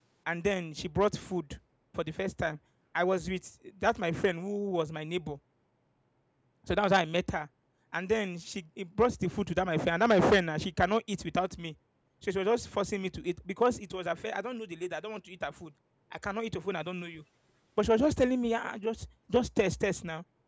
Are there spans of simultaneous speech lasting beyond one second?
No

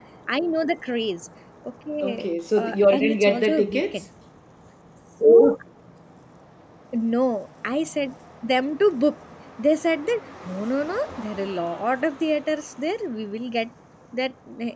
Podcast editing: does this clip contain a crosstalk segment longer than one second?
Yes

